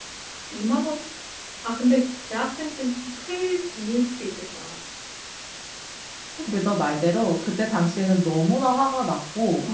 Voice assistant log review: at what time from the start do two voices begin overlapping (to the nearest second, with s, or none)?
none